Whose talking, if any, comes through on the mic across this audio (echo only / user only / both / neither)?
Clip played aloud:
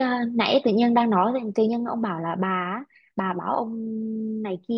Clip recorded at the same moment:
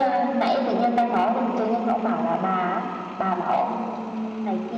echo only